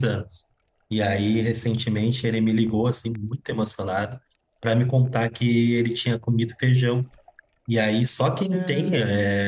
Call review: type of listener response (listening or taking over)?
listening